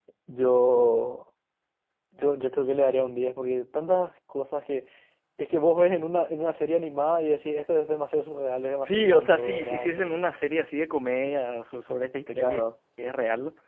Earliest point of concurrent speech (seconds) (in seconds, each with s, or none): 8.8 s